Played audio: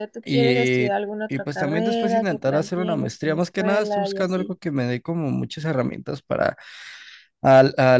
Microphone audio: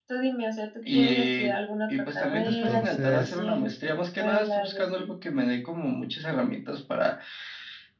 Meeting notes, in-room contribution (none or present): present